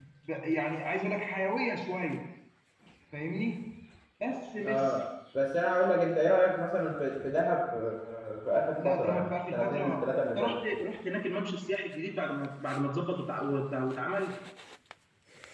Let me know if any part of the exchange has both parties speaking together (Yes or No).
Yes